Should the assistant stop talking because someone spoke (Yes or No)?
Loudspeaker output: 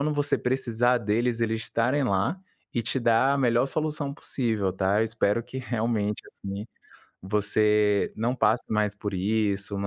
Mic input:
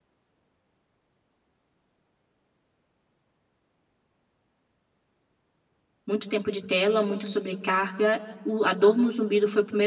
Yes